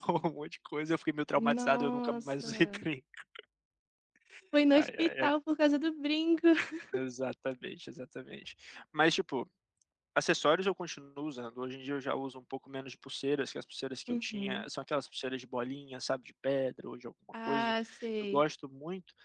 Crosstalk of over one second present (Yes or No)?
Yes